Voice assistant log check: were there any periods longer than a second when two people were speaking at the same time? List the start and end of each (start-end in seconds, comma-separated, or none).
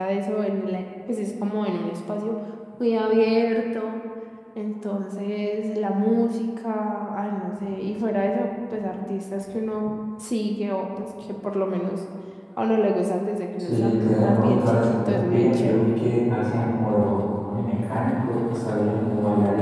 13.7-15.8